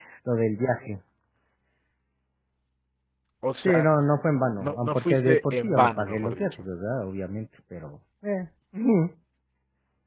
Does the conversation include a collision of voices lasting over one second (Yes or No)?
Yes